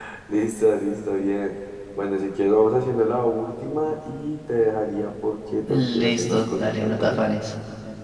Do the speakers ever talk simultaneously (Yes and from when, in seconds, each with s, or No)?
Yes, from 5.7 s